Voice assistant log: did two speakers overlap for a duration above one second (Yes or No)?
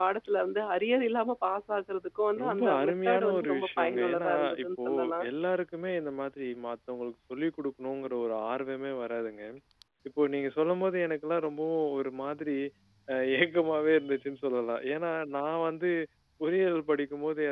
Yes